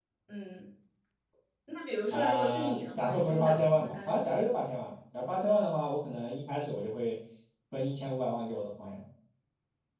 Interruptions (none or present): present